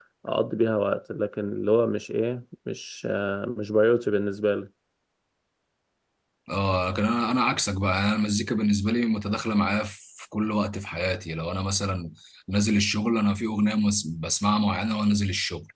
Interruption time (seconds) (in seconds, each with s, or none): none